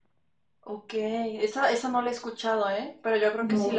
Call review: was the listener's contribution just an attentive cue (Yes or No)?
Yes